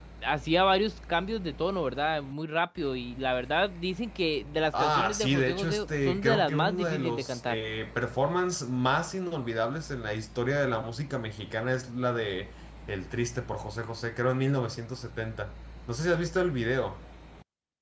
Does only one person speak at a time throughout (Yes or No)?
No